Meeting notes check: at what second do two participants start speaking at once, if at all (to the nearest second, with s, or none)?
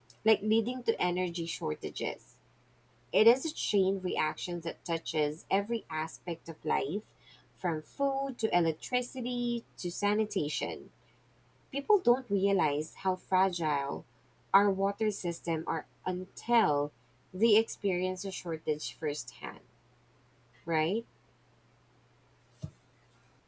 none